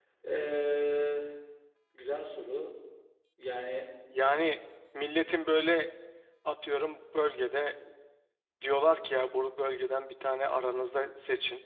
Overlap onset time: none

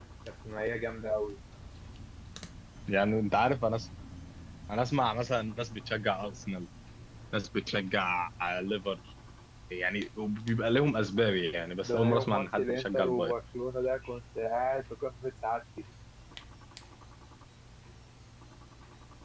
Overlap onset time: 11.8 s

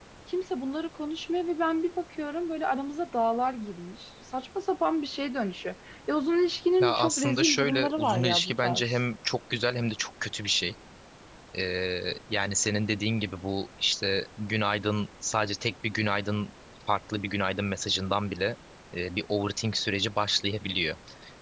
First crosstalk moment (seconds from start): 6.8 s

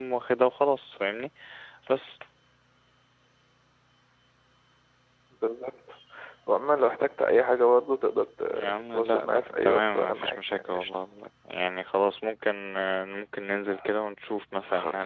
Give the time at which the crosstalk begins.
8.5 s

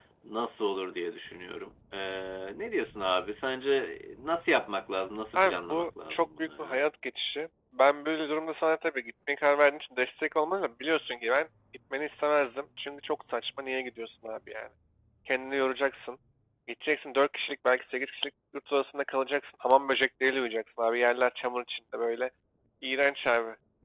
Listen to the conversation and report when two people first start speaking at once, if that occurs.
5.3 s

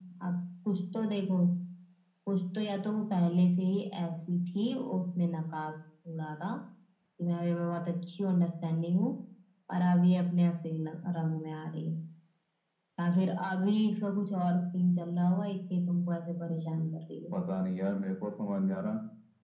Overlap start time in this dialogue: none

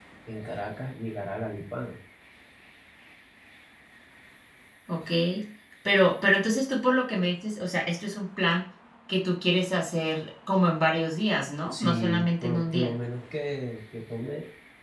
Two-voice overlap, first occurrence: 11.7 s

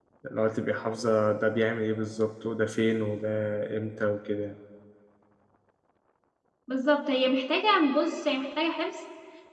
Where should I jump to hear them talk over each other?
none

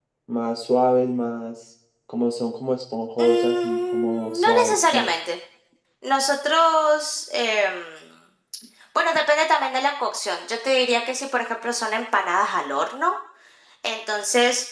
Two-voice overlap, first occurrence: 3.2 s

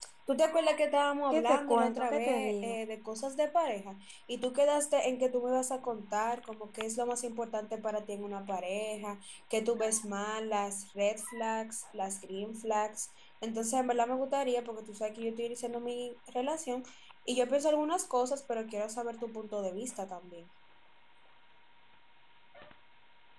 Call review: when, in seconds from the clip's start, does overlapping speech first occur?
1.3 s

